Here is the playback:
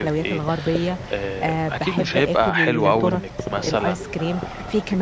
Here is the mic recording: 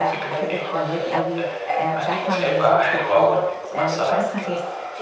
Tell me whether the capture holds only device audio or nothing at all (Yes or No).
No